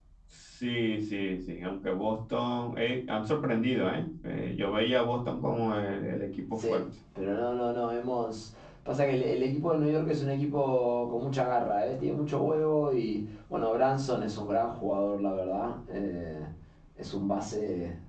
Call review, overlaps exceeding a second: none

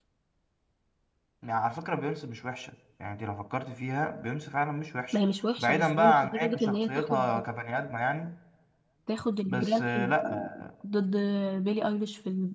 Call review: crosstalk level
present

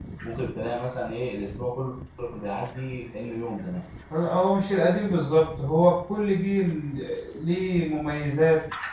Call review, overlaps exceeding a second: none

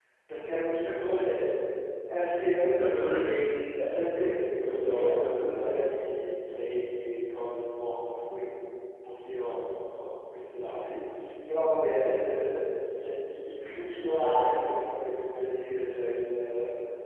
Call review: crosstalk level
present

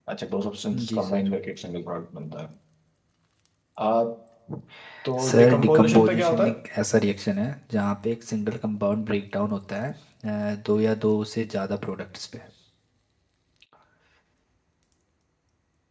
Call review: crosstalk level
present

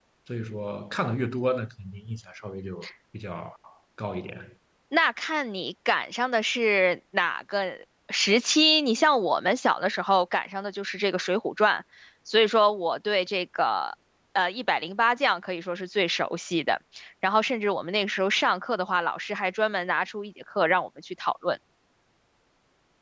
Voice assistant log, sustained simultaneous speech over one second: none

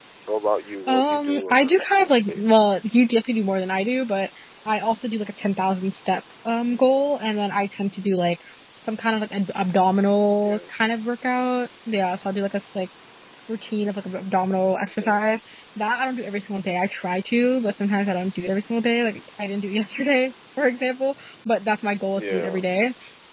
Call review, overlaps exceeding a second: present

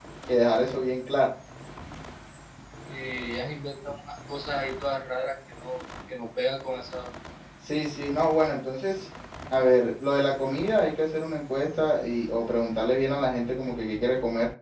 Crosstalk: none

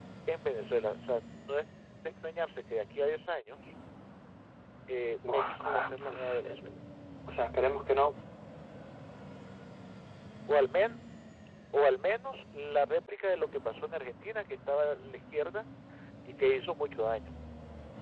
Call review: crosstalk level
present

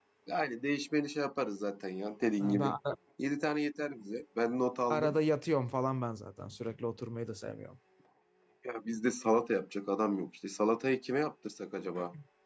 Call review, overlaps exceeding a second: none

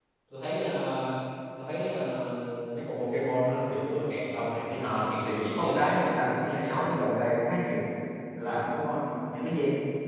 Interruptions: present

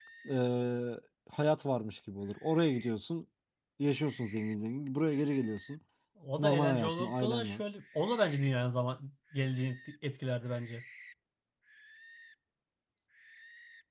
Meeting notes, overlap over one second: present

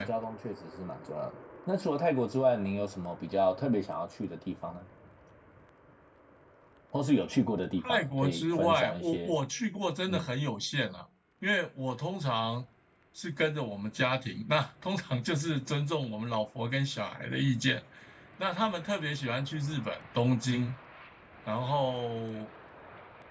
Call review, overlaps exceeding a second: present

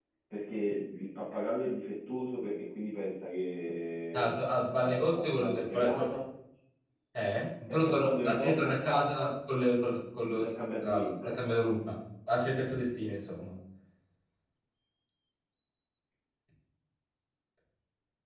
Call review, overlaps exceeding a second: present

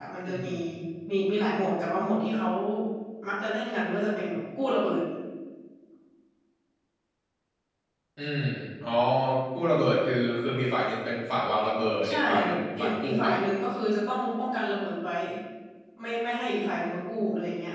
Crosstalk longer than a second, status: present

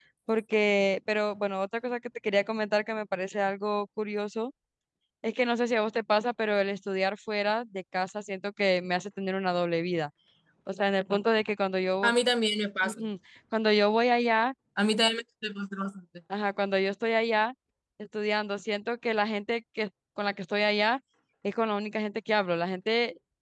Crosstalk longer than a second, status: none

